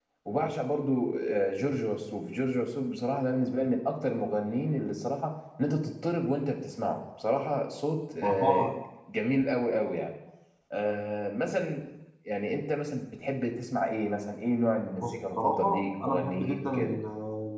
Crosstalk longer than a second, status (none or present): present